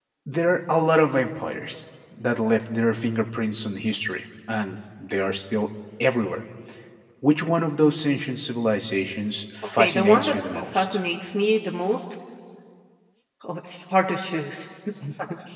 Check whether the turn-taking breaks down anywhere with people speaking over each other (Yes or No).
Yes